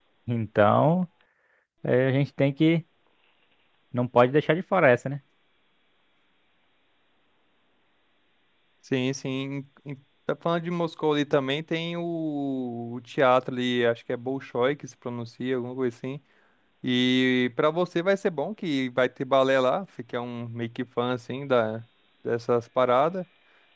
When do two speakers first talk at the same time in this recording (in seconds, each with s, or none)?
none